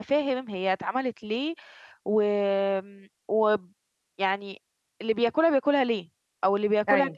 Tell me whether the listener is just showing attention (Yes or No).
Yes